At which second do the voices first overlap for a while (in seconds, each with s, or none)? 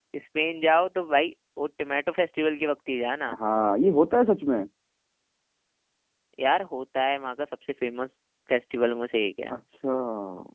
none